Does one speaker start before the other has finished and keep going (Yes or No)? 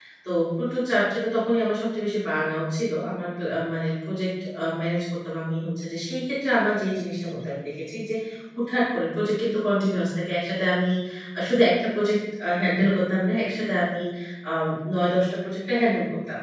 No